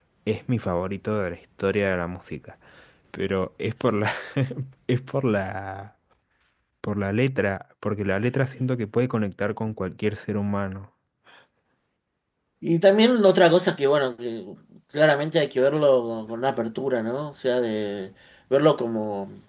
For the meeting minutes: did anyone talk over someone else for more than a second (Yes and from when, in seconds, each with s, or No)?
No